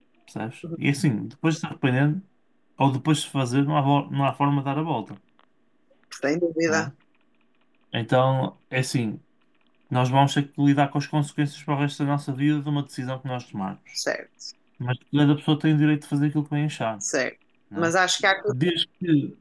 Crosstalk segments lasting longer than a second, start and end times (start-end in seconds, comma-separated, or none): none